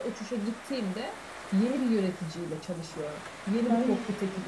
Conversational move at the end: listening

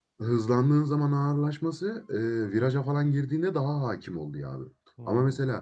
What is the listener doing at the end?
listening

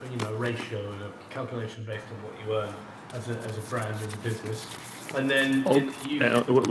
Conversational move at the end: taking over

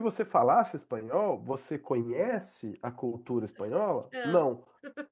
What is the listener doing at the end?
listening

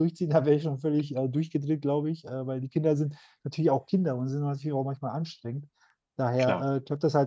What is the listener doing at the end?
listening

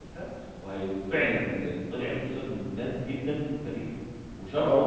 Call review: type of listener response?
taking over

